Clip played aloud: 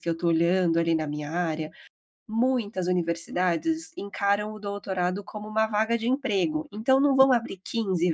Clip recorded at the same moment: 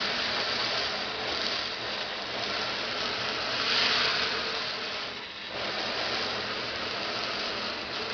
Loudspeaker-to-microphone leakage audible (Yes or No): No